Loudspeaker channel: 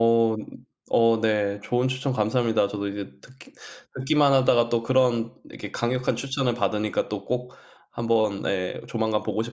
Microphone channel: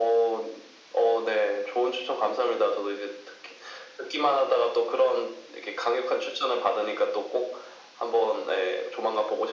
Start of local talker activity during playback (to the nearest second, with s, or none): none